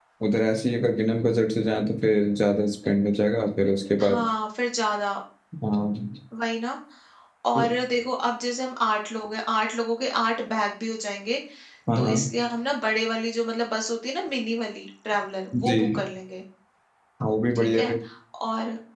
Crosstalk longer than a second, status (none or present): none